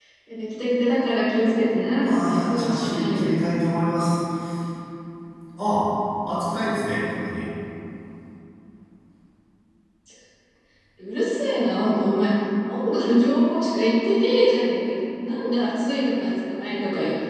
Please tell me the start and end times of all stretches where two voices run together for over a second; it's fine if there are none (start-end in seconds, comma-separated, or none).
2.0-3.4